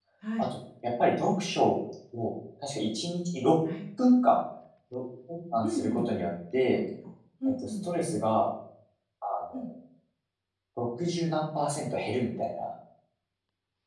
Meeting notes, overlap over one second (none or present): none